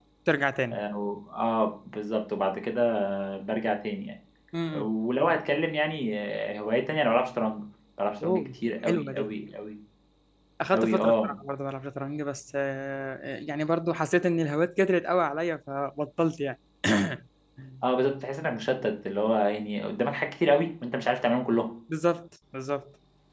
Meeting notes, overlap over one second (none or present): none